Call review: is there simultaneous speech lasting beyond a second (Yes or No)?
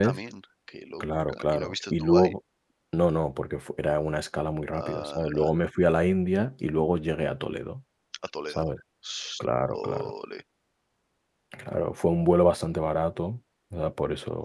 Yes